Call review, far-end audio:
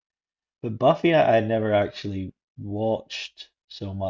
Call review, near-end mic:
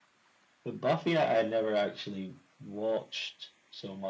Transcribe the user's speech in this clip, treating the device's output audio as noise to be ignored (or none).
none